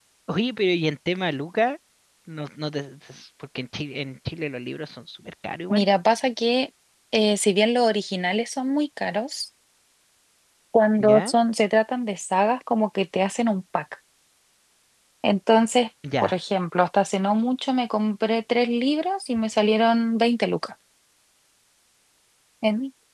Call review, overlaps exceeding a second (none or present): none